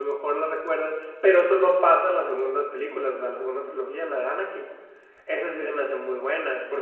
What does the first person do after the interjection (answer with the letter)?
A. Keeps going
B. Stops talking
A